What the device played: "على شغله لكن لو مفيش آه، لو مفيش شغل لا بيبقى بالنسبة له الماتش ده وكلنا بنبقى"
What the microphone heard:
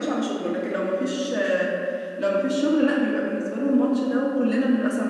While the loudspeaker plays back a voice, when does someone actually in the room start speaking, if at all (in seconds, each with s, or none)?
none